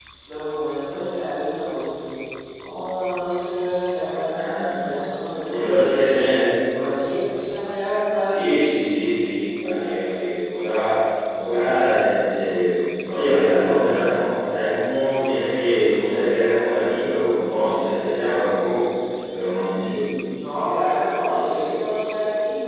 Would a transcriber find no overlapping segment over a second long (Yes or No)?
Yes